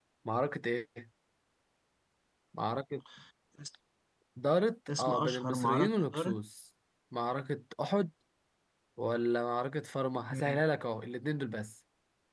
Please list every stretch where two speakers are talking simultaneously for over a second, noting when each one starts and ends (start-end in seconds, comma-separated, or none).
5.0-6.4